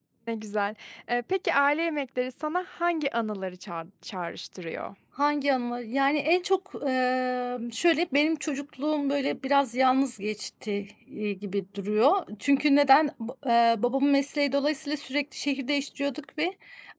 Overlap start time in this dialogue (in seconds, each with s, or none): none